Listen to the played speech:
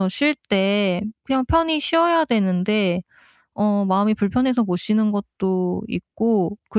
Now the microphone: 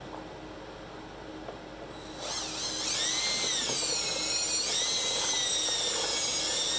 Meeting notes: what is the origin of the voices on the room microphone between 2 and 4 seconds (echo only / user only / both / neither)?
neither